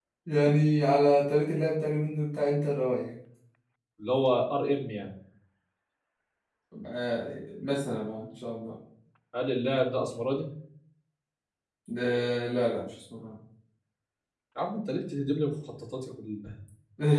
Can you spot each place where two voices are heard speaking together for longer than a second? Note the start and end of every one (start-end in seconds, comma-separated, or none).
none